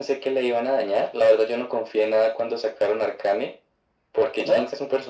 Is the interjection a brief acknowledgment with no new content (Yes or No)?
Yes